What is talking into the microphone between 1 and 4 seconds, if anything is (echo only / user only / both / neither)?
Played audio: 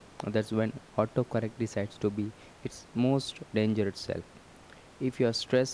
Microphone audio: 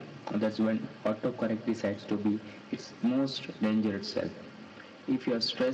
echo only